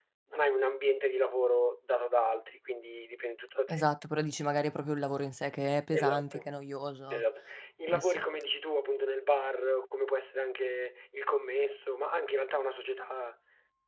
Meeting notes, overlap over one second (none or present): none